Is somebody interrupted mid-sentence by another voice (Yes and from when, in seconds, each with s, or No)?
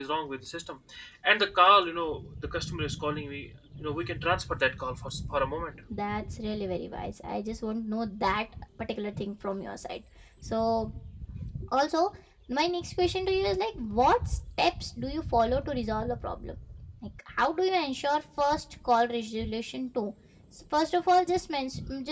No